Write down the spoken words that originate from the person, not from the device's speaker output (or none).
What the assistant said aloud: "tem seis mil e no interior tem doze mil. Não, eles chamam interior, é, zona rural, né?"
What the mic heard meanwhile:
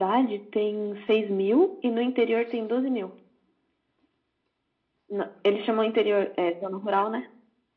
none